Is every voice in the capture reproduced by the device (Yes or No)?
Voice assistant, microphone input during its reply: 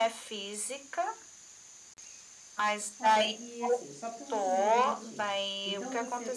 No